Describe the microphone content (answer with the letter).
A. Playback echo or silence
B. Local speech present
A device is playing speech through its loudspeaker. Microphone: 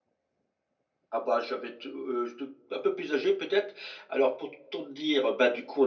B